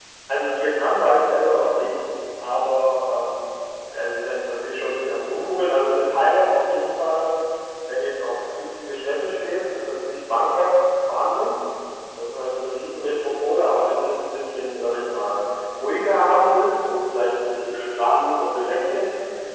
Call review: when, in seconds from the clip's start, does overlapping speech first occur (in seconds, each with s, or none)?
none